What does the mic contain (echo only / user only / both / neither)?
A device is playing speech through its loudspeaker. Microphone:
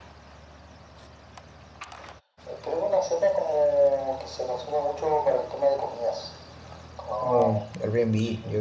both